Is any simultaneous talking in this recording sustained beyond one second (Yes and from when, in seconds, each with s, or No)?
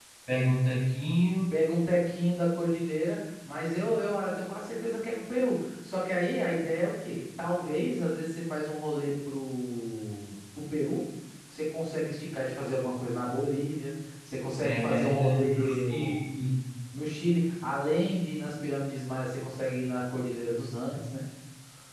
Yes, from 14.6 s